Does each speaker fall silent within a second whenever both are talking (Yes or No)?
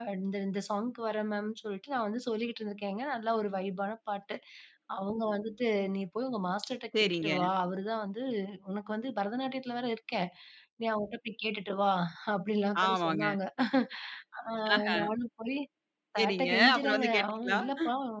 No